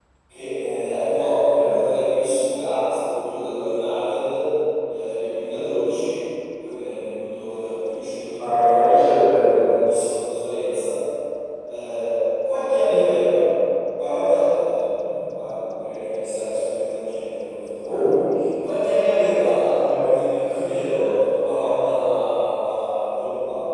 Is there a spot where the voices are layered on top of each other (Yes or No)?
Yes